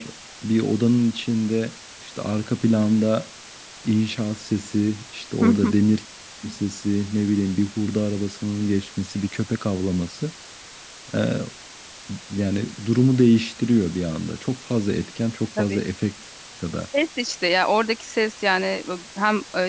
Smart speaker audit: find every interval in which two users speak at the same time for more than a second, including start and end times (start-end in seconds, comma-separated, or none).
none